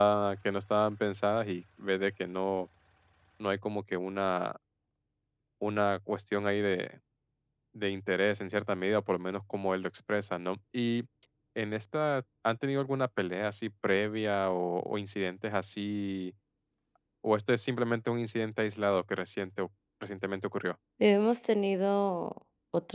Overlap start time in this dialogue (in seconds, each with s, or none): none